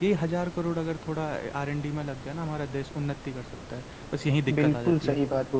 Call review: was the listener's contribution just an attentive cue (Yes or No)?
No